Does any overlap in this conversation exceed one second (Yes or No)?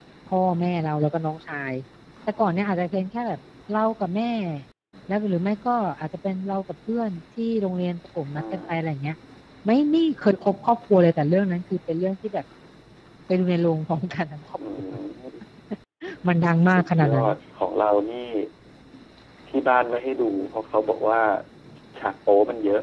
No